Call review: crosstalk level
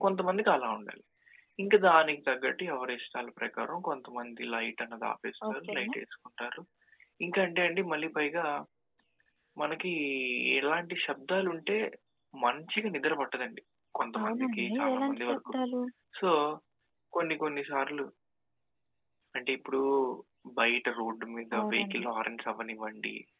present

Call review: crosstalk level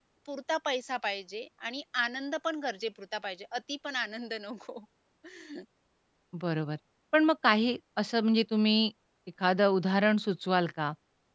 none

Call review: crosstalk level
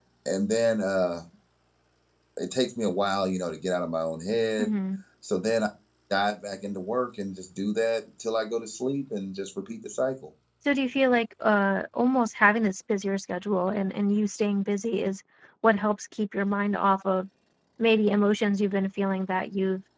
none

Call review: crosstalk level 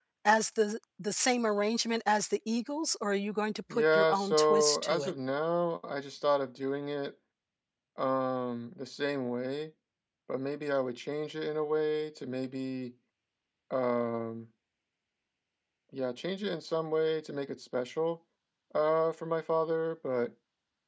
present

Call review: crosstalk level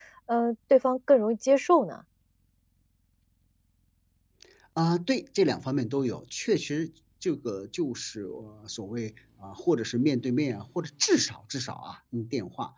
none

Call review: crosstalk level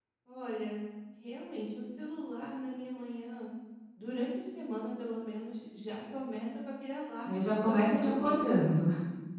present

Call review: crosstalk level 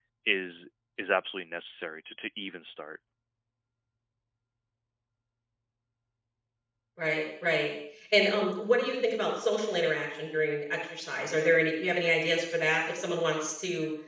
none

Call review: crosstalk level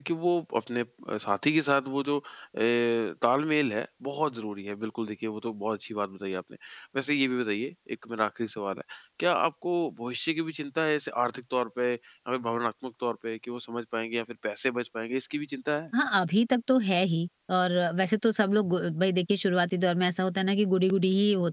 none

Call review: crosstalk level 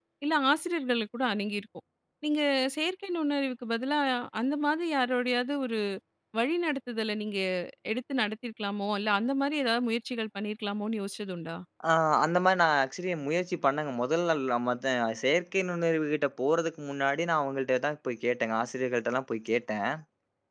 none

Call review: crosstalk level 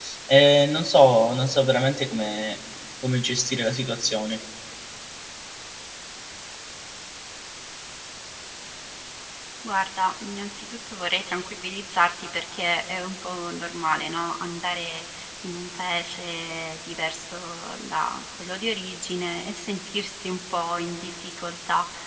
none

